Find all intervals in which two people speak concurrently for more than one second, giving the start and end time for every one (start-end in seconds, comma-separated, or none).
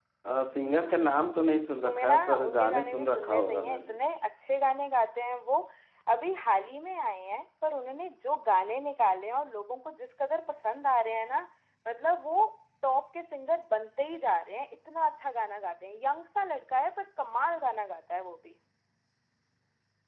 1.8-3.9